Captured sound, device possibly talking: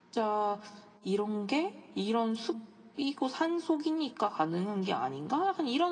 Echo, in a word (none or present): none